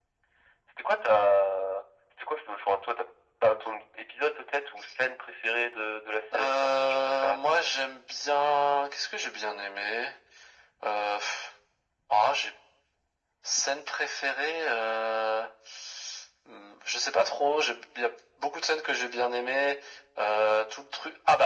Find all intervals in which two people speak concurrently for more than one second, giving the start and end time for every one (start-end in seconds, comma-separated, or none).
6.4-7.6